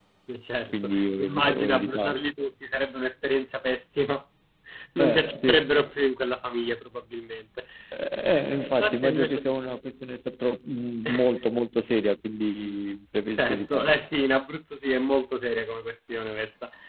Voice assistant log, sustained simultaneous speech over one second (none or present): present